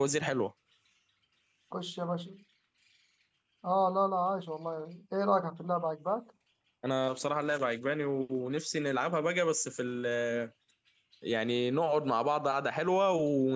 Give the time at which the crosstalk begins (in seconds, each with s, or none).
none